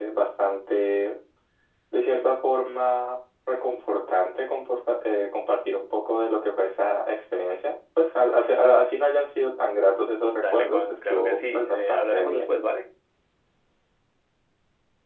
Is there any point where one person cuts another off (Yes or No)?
Yes